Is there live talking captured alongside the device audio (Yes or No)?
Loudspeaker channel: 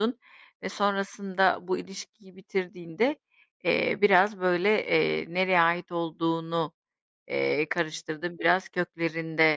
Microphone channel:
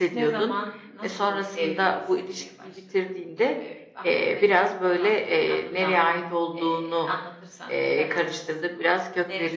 Yes